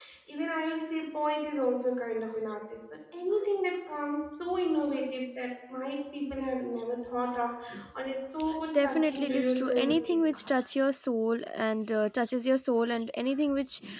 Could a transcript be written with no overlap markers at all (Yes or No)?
No